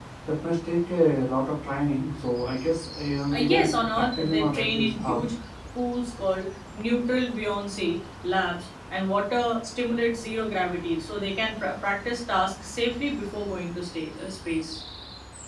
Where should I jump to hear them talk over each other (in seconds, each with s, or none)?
3.3 s